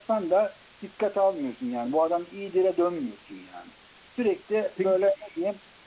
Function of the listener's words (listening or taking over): listening